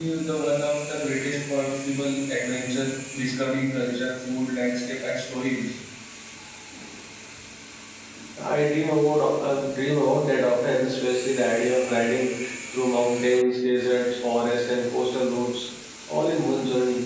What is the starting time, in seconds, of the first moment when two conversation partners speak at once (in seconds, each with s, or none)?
none